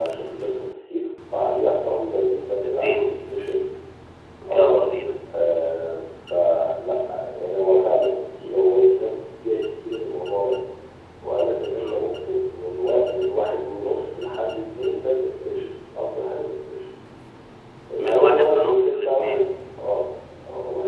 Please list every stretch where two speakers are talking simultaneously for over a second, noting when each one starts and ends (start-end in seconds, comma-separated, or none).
18.0-19.5